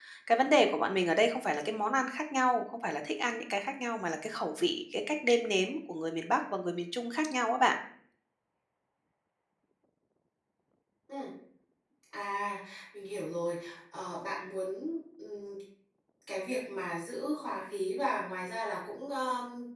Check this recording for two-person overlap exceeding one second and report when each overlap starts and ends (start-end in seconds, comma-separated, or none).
none